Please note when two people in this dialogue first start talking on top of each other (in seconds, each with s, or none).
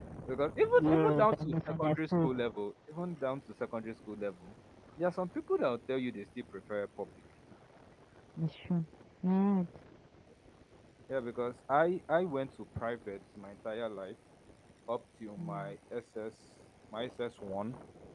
0.8 s